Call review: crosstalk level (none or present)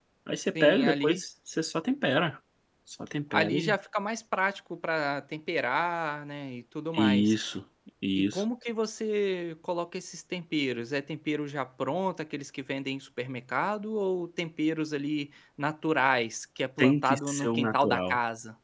present